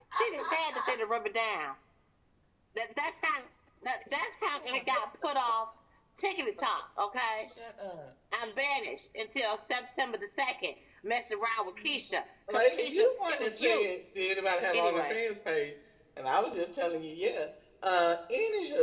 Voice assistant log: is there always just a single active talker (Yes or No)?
No